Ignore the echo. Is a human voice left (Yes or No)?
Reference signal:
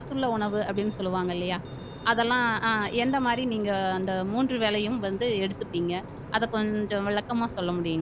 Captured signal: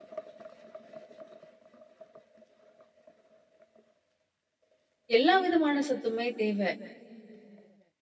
Yes